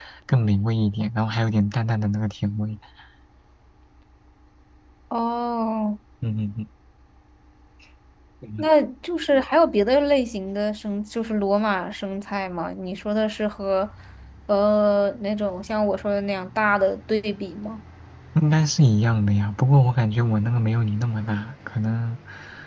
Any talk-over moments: No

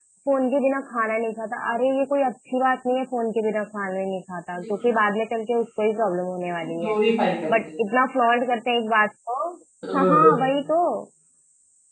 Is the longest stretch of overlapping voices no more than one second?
Yes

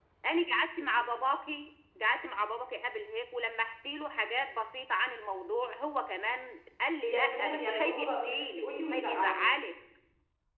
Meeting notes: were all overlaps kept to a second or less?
No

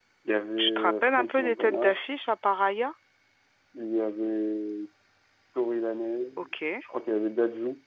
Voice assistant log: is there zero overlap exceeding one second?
No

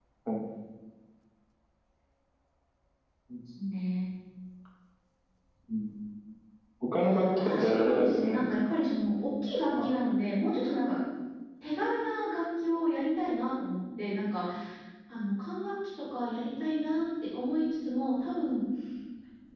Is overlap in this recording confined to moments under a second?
No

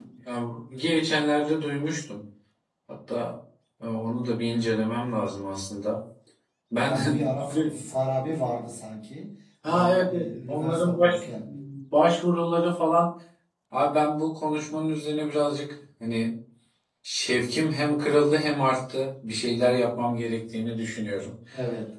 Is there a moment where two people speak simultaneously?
Yes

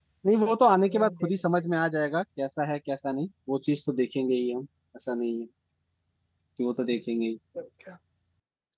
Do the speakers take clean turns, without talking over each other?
No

